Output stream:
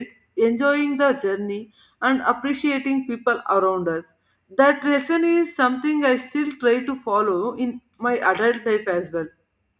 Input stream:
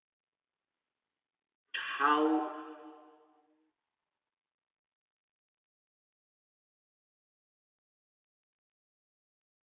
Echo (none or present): none